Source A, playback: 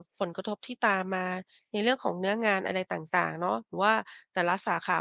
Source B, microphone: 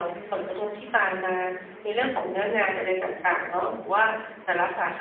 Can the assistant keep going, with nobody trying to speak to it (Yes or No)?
Yes